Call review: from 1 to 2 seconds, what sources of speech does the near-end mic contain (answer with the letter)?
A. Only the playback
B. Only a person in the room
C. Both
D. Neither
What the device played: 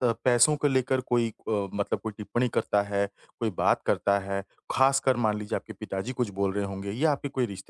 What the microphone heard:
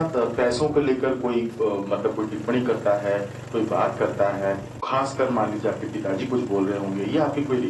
A